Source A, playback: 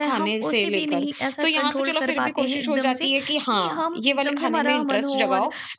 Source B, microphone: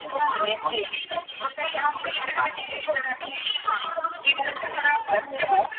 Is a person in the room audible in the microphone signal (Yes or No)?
No